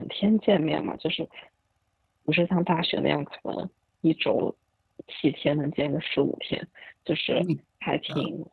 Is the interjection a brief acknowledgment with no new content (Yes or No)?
Yes